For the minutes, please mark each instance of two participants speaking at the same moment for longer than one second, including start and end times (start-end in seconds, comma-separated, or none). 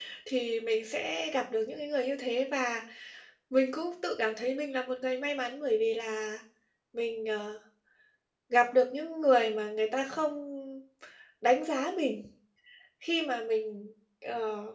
none